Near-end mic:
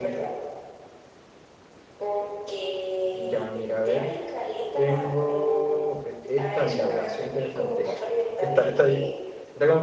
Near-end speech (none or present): present